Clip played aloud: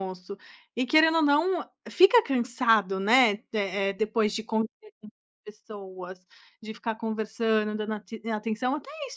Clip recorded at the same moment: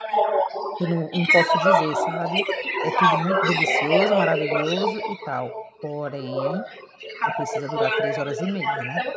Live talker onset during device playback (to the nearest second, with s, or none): 1 s